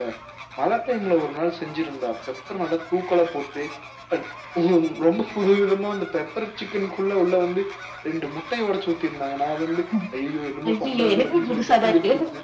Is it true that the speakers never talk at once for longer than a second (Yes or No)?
No